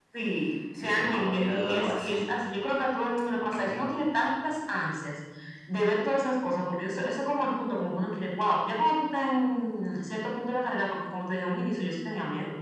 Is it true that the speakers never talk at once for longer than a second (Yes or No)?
No